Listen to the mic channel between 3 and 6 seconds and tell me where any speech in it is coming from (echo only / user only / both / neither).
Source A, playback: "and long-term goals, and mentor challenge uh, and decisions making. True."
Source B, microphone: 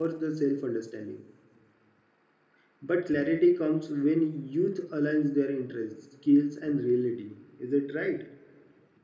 user only